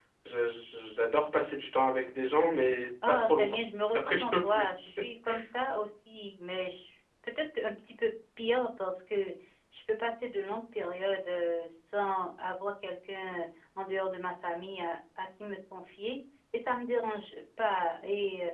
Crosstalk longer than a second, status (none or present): present